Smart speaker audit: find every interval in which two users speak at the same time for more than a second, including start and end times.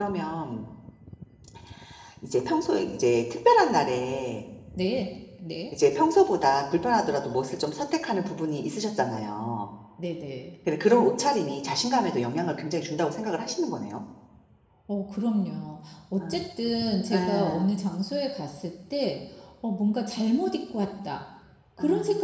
none

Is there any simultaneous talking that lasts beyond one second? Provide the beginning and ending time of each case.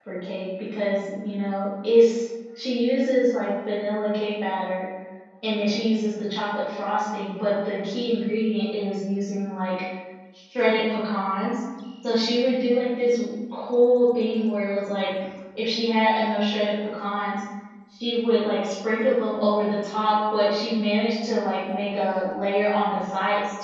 none

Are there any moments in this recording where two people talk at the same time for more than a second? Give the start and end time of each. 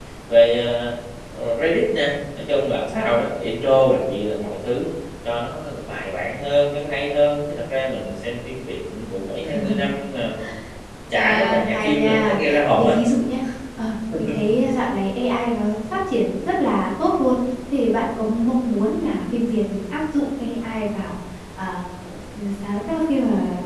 11.1-12.9

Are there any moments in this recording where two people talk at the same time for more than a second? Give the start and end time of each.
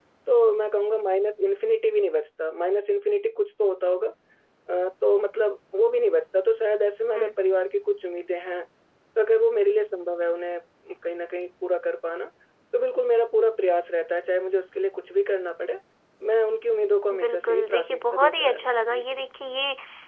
17.2-19.0

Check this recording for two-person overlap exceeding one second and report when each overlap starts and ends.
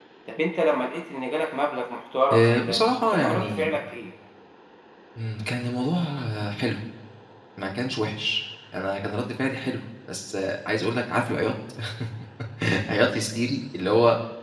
2.3-3.7

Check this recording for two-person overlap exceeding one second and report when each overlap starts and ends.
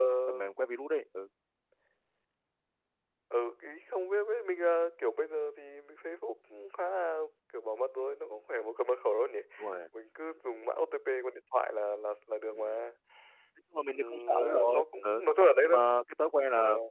13.9-15.2

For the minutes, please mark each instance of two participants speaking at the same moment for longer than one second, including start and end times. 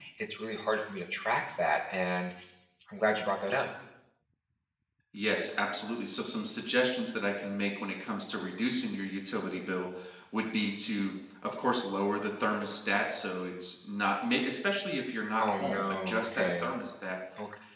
15.4-16.7

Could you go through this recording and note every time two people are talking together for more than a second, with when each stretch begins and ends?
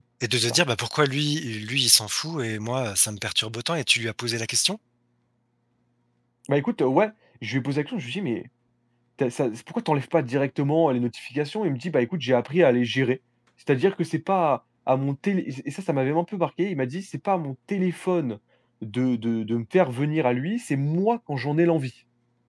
none

